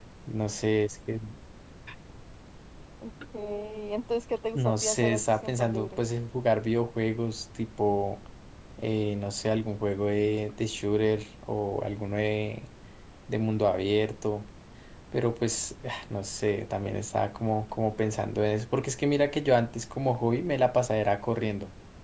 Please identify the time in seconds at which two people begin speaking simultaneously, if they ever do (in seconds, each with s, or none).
4.5 s